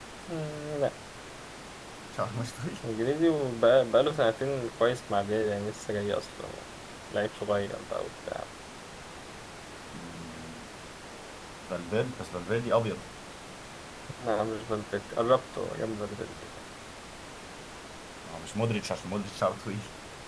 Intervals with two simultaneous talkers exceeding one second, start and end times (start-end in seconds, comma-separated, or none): none